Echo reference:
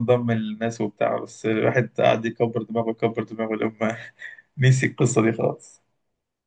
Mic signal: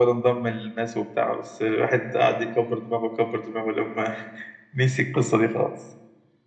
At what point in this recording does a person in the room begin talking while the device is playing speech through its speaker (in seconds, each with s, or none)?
none